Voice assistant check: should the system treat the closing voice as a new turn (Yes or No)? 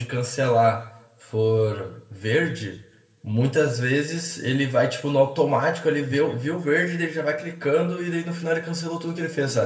Yes